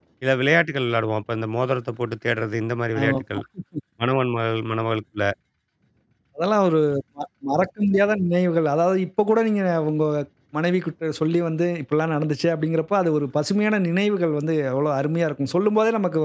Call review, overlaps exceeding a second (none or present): none